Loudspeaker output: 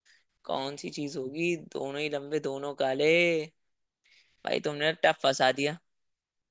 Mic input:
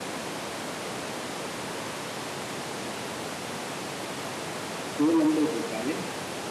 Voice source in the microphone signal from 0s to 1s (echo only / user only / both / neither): neither